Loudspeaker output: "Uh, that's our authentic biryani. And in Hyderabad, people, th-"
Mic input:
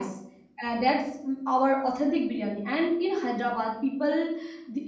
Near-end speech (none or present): none